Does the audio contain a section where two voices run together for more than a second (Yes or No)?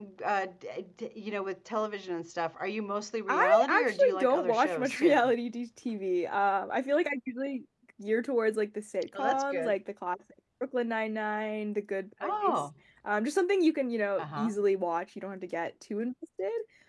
Yes